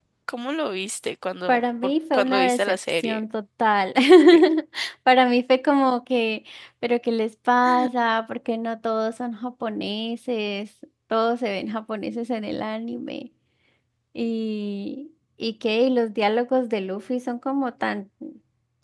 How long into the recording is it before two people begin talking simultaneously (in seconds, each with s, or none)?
1.5 s